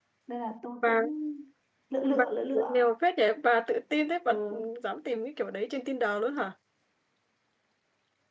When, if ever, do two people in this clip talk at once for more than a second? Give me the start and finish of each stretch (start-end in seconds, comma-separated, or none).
none